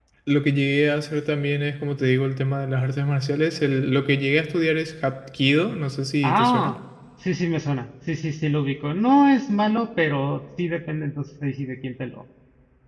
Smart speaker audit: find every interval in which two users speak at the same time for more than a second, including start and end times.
none

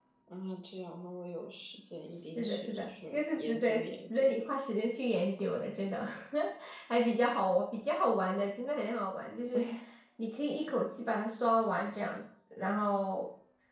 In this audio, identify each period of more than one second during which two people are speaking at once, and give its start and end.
2.4-4.4

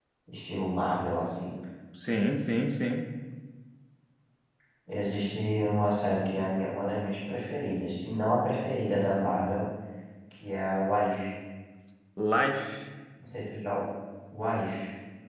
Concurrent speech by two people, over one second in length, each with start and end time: none

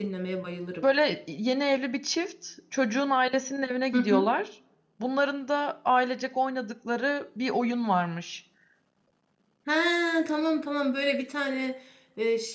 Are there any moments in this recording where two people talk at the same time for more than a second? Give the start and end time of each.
none

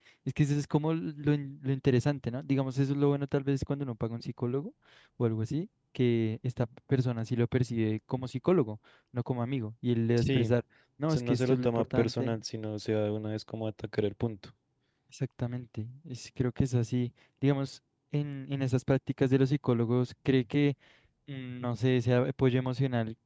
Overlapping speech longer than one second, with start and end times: 11.1-12.3

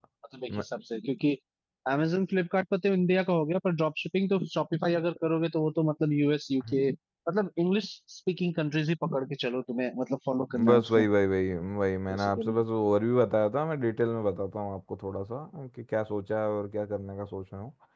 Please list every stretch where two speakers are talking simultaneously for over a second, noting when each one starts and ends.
none

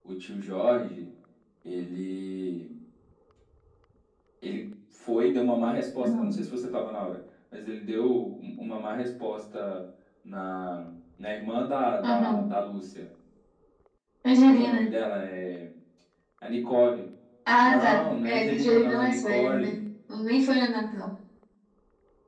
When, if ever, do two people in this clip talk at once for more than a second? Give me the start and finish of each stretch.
17.6-19.8

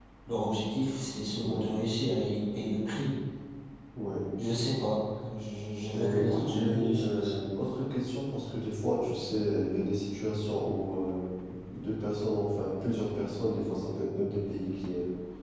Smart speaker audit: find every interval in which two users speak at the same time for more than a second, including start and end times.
5.9-7.4

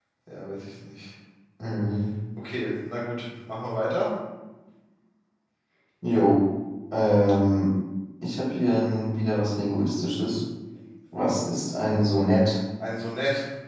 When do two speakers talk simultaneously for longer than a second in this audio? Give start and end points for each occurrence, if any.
none

